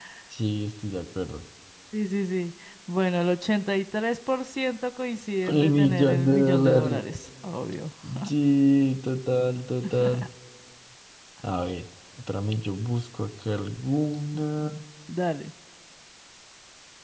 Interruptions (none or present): present